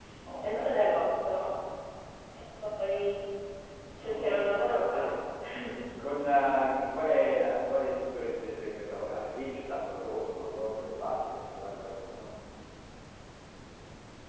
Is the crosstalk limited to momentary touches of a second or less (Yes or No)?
Yes